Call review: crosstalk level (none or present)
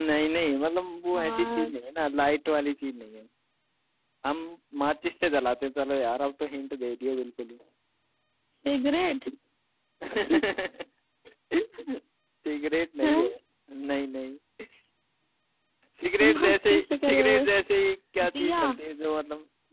present